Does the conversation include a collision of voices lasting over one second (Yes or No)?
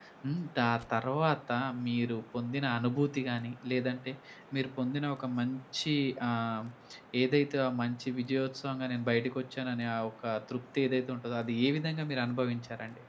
No